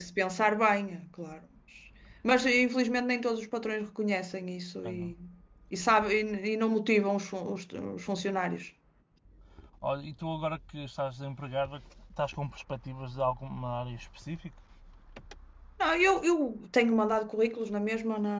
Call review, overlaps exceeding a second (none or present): none